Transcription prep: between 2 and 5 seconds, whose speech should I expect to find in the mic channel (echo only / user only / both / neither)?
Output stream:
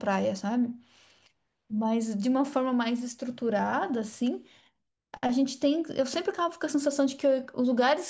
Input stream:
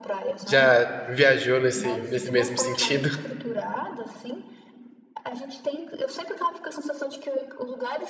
both